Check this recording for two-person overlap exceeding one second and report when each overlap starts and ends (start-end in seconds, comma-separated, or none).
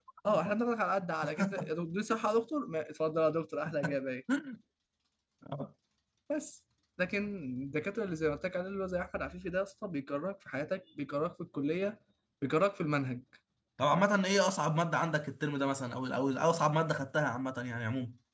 none